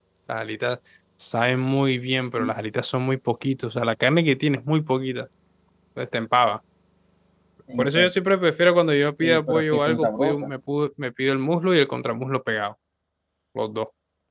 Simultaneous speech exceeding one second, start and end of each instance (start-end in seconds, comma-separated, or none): 9.2-10.5